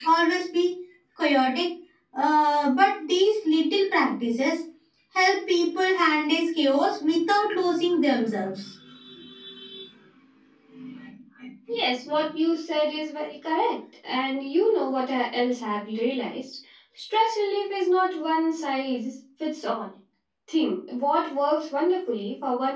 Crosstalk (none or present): none